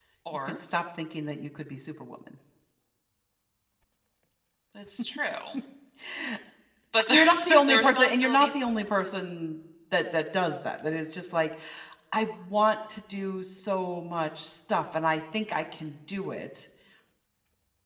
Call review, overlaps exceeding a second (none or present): present